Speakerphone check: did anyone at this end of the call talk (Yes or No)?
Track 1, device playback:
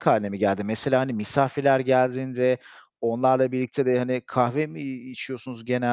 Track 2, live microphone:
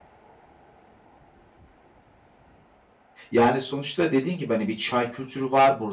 Yes